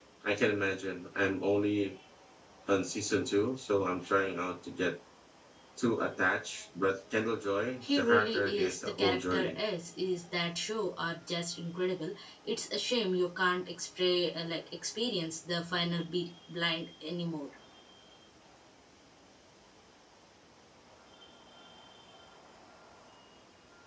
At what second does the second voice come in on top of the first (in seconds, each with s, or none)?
7.8 s